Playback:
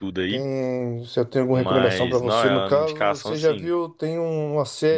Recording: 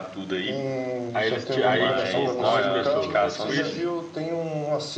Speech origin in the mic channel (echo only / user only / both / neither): both